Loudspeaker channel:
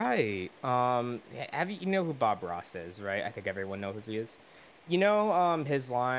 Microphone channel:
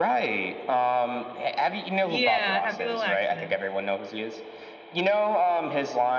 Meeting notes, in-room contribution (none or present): present